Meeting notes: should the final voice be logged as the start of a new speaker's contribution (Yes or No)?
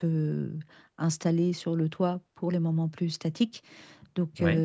No